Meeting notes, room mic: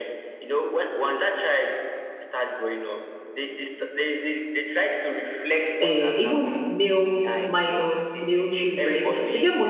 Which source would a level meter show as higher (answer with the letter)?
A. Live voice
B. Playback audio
A